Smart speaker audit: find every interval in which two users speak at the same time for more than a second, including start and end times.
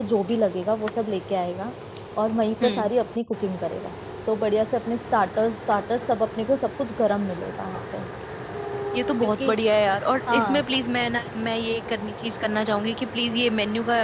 none

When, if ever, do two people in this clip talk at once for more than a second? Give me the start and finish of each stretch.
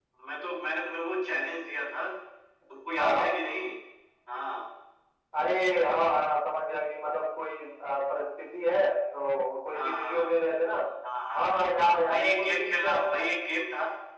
11.4-13.3

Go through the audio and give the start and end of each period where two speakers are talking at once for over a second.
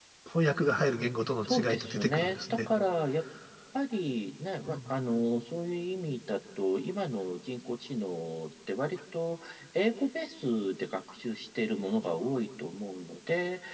1.5-2.7

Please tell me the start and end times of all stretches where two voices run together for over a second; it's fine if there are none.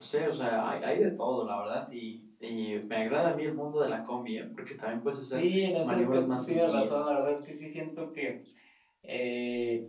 5.3-7.0

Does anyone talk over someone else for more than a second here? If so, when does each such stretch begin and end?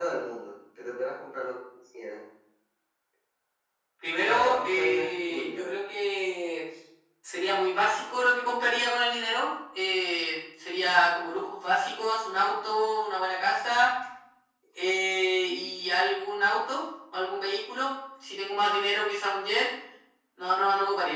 4.2-5.8

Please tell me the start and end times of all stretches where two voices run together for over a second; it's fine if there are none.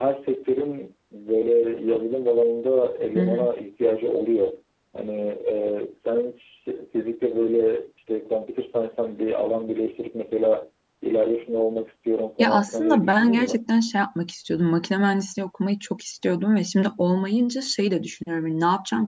12.4-13.6

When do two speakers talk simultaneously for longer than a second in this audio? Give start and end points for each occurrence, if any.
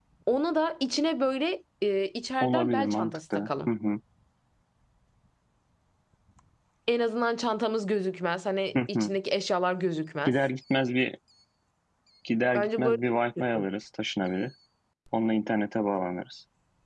2.4-3.7

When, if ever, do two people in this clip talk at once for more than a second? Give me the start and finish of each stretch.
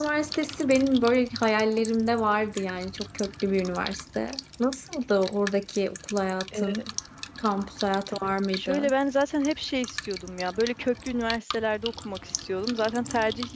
none

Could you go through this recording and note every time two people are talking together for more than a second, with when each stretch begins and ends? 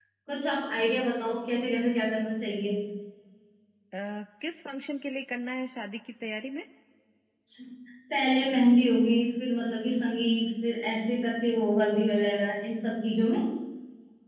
none

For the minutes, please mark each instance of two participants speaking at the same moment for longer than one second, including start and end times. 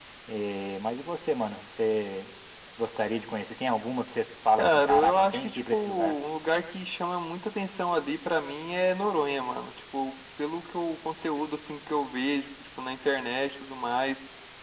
4.6-6.2

